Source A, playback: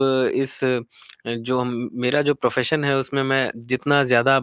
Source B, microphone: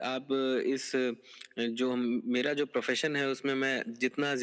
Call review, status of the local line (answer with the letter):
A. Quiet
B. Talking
A